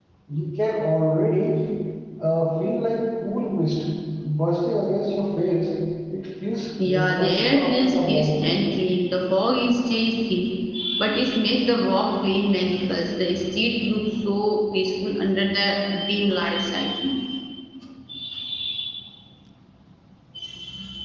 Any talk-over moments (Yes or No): Yes